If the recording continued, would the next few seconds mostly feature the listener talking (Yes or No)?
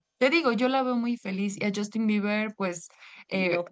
No